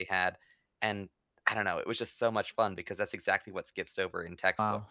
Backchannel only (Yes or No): No